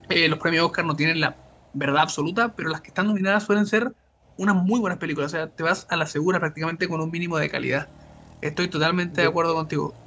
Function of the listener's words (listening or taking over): listening